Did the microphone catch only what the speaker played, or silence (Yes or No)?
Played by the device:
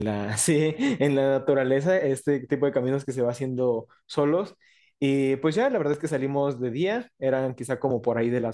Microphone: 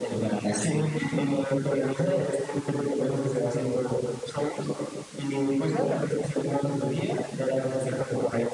Yes